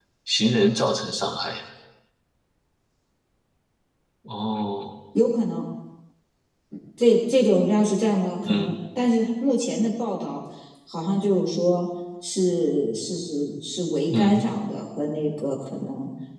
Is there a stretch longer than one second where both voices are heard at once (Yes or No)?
No